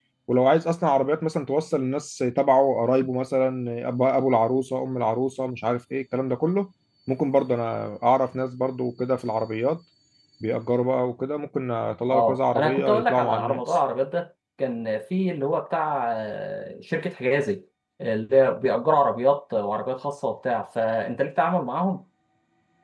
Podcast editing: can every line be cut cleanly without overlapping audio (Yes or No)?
No